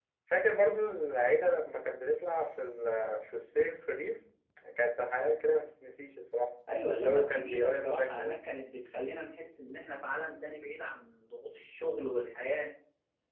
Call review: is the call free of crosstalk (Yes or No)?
No